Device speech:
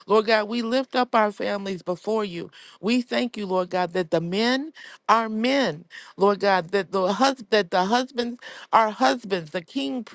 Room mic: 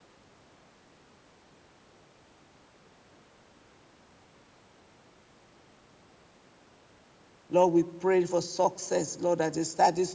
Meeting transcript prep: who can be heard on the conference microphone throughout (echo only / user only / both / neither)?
user only